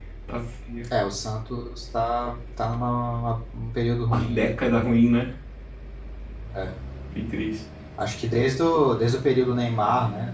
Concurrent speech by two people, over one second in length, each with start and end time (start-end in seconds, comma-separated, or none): none